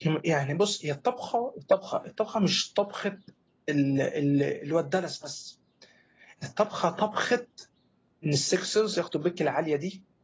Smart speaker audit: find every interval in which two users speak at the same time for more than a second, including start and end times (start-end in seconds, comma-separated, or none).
none